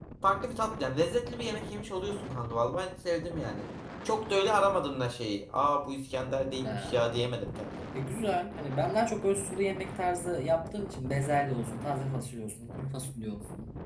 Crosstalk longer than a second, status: none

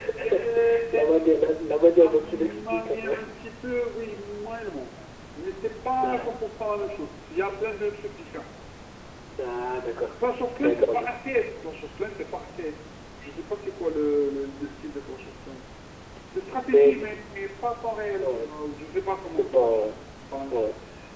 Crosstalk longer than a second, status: present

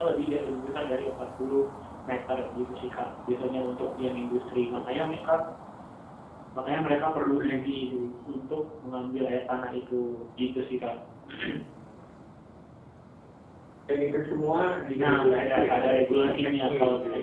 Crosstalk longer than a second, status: present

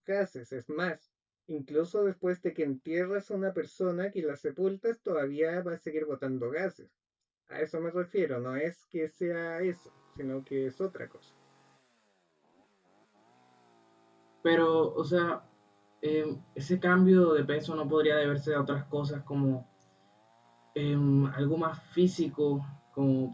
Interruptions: none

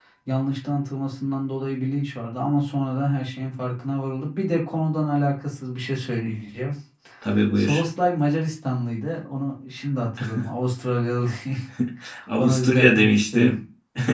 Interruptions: present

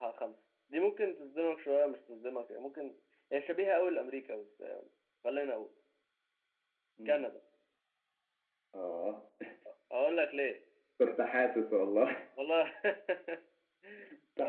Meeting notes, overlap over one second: none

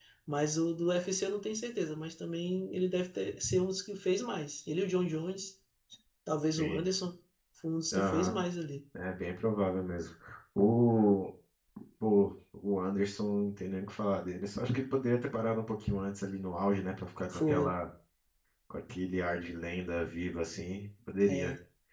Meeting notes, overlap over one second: none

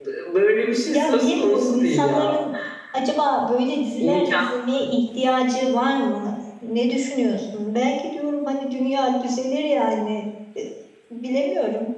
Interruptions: present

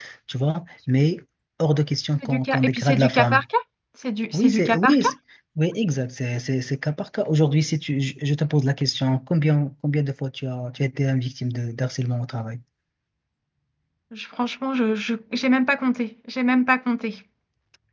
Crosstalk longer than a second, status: present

